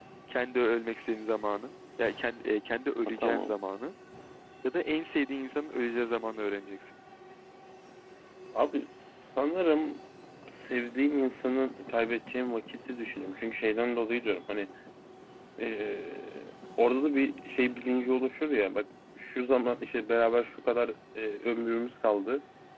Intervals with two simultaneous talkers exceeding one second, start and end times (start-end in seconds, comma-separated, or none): none